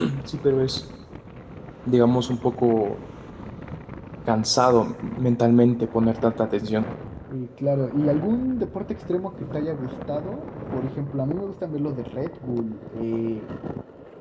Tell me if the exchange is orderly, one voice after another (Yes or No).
Yes